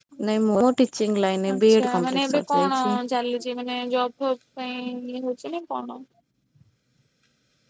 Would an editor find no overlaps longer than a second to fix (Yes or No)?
No